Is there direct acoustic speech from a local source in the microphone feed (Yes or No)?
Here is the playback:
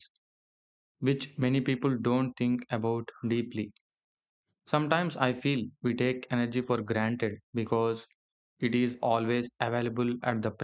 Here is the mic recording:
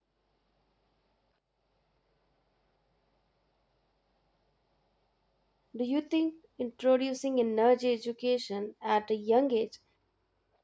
Yes